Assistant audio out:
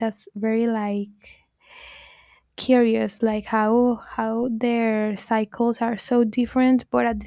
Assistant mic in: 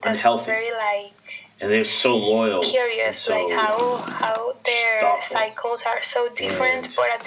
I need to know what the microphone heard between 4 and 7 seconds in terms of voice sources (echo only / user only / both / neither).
both